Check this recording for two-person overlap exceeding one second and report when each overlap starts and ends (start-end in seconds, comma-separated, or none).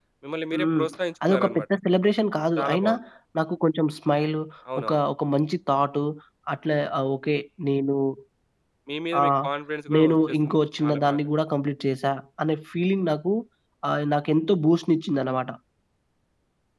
10.0-11.2